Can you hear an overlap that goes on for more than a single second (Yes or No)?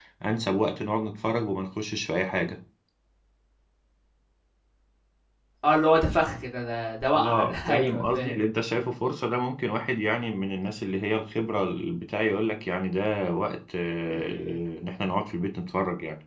Yes